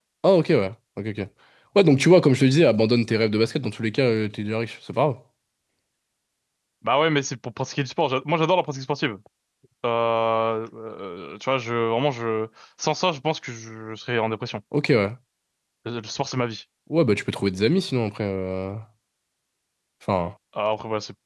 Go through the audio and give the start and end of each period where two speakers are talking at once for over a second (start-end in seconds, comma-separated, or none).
none